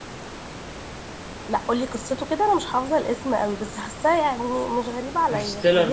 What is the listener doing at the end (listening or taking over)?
taking over